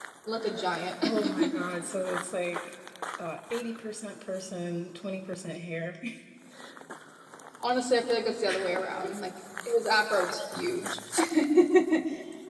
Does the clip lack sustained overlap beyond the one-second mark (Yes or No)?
Yes